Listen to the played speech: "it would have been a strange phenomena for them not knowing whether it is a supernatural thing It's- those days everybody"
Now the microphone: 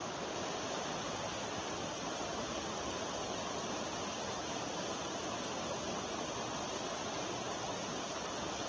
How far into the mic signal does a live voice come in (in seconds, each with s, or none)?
none